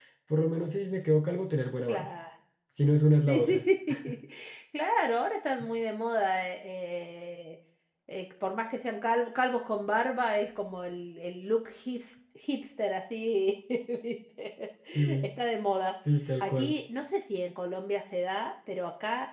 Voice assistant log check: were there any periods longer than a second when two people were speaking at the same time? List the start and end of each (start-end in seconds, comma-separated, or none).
none